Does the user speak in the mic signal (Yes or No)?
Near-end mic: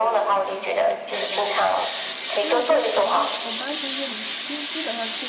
Yes